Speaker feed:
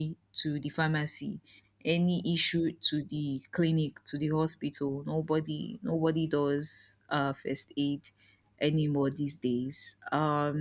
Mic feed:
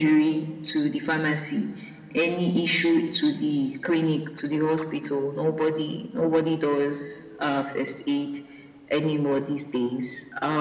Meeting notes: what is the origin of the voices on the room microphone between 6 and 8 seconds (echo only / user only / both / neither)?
echo only